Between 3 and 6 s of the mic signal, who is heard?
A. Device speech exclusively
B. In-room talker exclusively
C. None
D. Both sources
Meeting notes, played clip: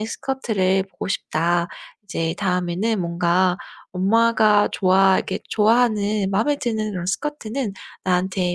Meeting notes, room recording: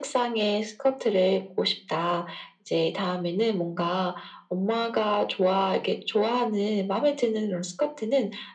A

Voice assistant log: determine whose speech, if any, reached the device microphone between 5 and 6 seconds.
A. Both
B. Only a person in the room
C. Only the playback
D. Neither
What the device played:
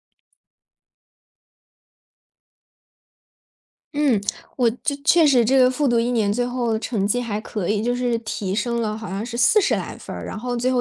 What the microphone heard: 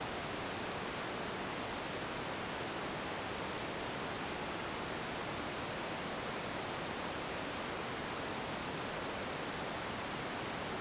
D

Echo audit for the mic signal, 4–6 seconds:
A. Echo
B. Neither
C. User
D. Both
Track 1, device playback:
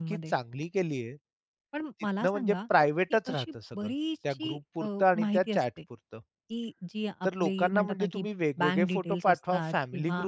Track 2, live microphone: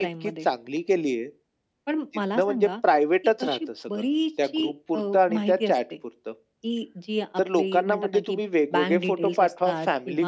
A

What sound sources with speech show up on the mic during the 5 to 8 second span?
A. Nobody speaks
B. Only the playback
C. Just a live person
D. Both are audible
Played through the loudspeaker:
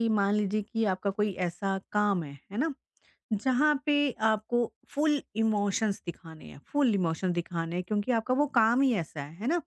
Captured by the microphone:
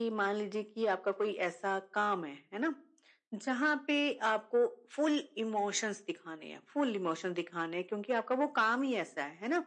B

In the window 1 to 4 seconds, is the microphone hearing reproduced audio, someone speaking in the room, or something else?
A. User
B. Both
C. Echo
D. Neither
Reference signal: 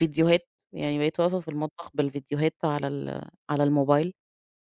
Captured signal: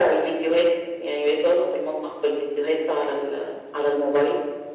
C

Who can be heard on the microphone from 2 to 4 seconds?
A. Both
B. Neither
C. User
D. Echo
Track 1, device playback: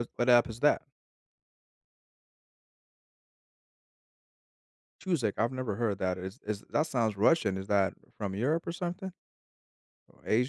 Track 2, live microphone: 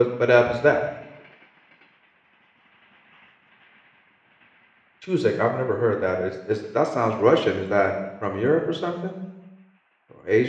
B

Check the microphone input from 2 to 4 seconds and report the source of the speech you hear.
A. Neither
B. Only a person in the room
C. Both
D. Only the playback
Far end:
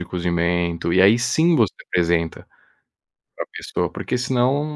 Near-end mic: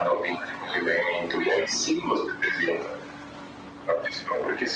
D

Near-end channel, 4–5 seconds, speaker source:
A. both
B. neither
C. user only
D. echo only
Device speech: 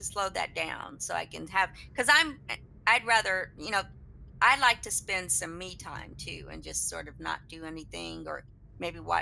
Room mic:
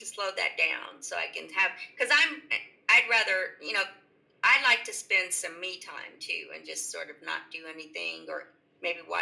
D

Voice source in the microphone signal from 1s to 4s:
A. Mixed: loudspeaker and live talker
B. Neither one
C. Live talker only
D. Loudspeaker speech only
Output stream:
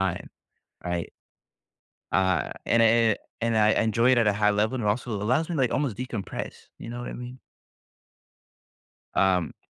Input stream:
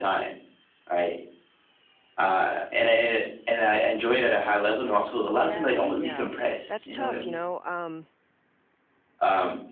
D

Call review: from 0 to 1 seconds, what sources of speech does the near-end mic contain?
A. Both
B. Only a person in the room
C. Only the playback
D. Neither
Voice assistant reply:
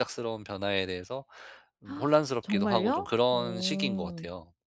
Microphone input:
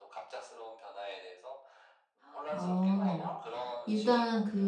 C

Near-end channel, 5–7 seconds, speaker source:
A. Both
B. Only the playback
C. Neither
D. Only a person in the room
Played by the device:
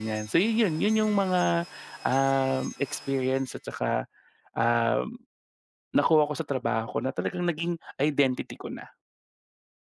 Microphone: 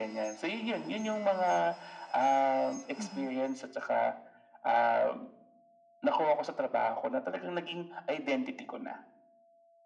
B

